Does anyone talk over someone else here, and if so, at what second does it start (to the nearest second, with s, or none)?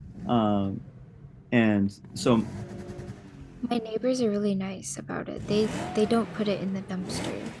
none